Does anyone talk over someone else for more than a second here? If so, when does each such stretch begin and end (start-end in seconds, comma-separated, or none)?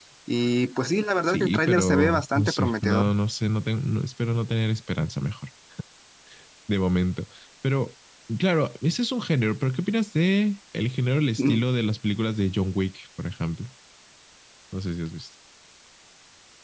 1.3-3.0